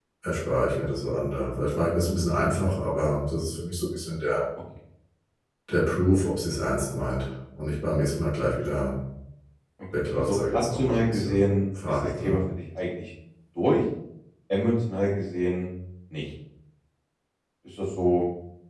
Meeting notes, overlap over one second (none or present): present